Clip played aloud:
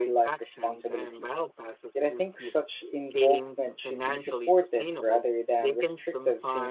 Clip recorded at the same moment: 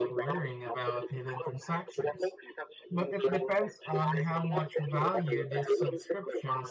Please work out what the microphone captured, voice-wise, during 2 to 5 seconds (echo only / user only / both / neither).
both